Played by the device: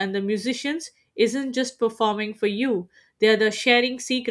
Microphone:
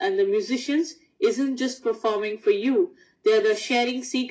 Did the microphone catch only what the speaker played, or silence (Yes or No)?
Yes